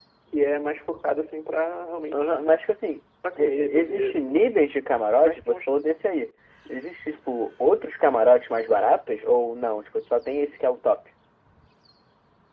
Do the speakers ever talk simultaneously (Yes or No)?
Yes